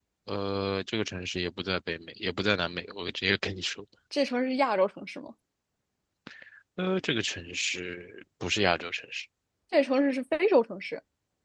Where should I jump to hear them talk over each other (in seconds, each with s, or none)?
none